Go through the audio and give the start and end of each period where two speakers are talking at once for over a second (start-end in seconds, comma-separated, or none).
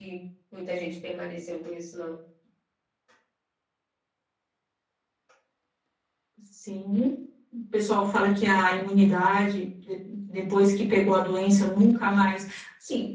none